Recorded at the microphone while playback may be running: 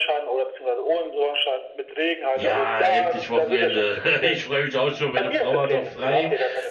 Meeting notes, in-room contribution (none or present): present